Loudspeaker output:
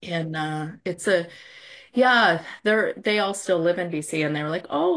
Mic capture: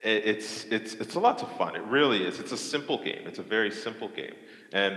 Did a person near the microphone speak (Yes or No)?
Yes